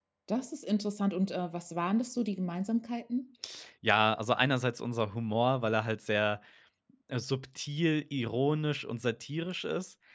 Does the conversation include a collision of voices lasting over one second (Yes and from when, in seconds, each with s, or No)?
No